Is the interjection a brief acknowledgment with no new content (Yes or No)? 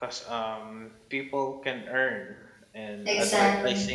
Yes